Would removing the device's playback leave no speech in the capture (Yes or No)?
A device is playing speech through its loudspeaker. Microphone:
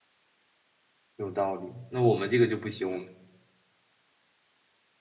No